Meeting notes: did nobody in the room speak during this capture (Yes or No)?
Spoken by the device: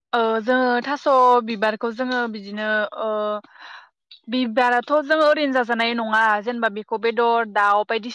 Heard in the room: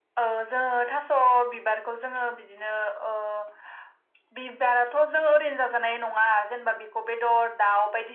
Yes